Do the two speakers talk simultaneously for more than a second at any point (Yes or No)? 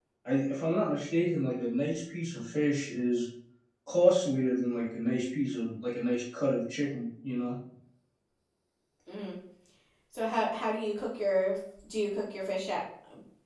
No